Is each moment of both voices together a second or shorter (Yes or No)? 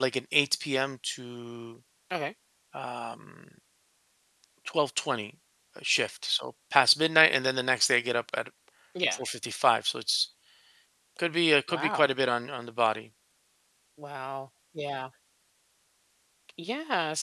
Yes